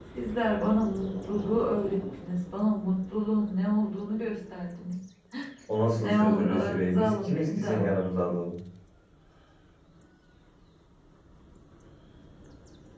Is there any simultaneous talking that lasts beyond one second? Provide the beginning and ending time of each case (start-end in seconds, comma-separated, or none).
5.9-8.0